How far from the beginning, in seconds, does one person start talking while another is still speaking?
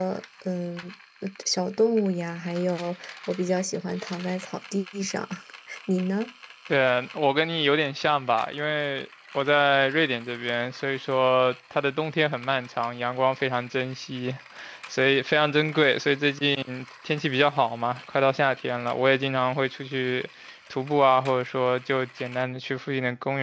none

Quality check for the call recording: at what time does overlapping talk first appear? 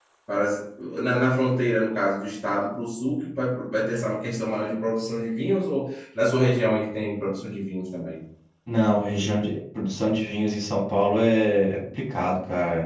none

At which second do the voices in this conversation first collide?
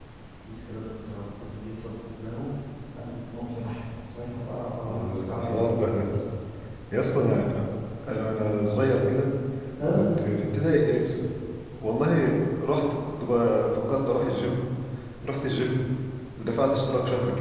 4.8 s

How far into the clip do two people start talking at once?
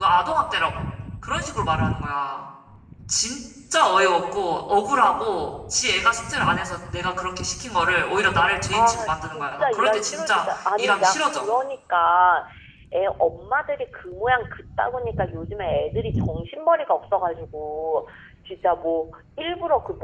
8.7 s

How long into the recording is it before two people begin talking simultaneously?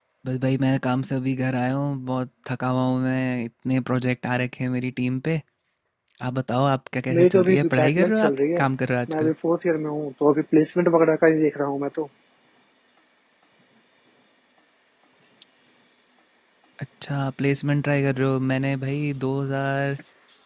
7.1 s

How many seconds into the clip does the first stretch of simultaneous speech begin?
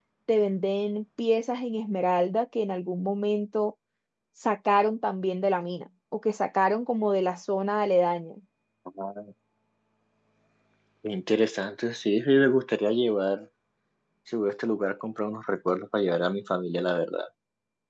none

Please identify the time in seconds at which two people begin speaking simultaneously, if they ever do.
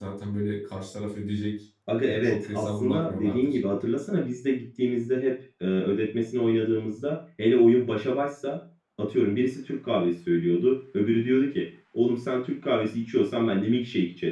1.9 s

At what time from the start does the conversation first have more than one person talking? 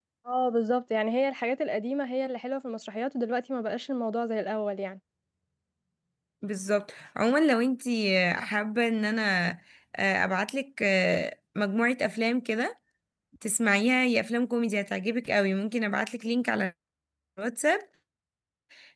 none

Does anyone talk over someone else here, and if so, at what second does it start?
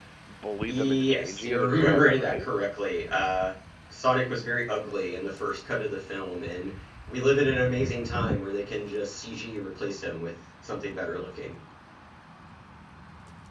0.7 s

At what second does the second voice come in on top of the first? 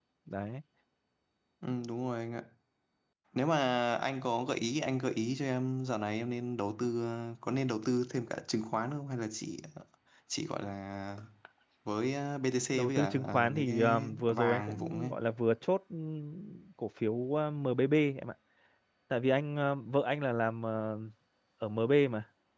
12.7 s

